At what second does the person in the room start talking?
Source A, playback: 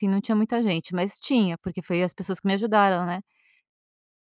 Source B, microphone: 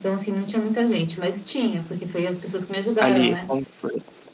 3.0 s

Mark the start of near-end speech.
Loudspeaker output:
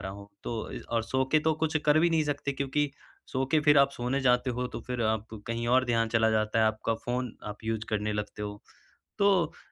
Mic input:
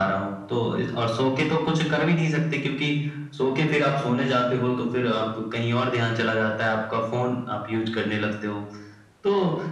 none

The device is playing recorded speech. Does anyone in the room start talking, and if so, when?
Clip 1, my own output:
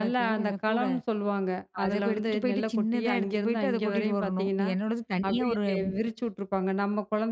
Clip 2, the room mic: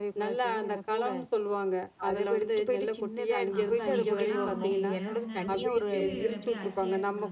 3.6 s

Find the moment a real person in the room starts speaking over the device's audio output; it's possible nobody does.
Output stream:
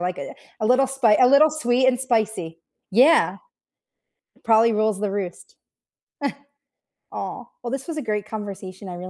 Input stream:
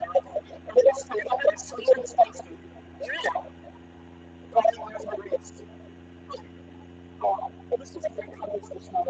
none

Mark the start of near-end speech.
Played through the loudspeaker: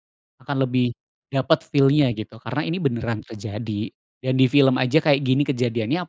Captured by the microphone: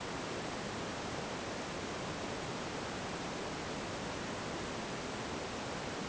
none

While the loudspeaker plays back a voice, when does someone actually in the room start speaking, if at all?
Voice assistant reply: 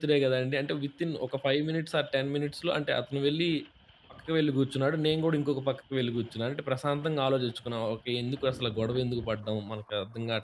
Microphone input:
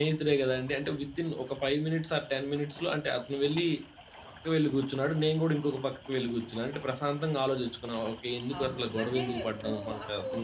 8.6 s

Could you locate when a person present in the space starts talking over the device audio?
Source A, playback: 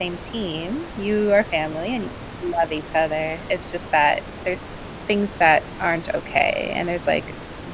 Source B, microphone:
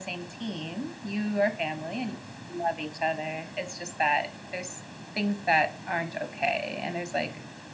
none

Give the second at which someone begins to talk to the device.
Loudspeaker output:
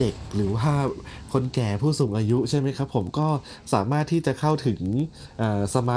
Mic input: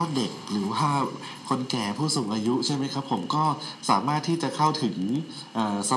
none

